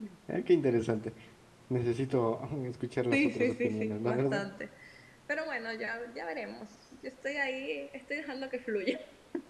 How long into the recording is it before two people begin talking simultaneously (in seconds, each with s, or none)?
3.1 s